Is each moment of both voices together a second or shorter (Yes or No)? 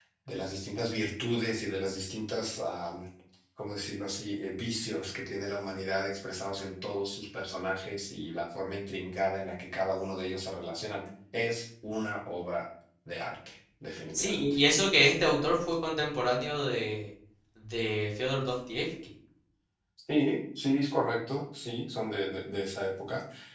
Yes